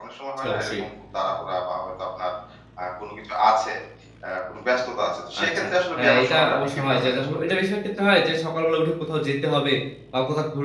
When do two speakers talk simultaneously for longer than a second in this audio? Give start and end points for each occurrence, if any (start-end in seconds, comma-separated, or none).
5.4-7.2